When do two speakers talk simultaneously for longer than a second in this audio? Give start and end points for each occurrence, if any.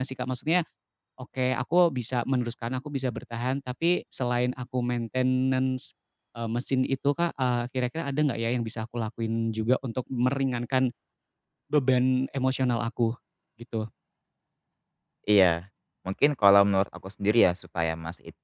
none

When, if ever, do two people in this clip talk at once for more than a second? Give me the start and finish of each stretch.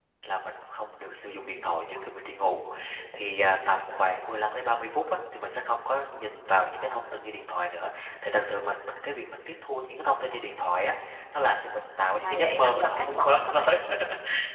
12.2-13.7

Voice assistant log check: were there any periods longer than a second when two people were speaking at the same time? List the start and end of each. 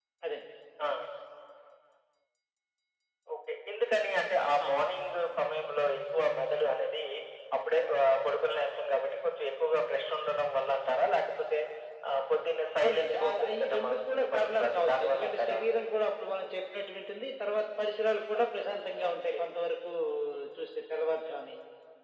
12.8-15.6

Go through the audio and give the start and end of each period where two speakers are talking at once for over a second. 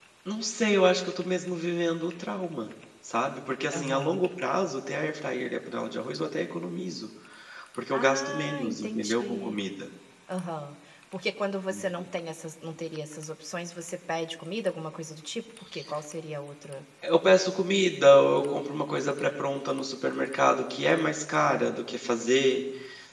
7.9-9.6

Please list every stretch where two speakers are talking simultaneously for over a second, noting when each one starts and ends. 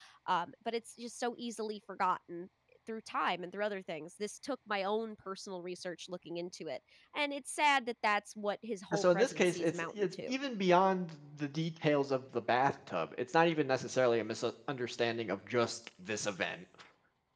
9.0-10.3

